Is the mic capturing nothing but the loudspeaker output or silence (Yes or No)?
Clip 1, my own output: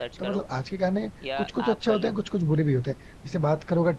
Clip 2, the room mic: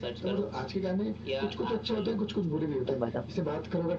No